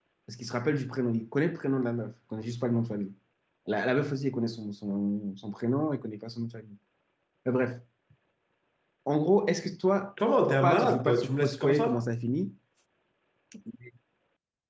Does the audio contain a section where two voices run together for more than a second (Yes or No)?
Yes